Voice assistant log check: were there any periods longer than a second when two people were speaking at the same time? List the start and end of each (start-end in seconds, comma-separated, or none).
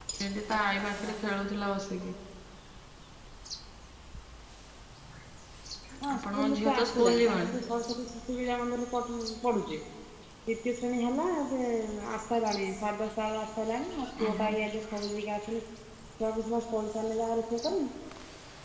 6.2-7.6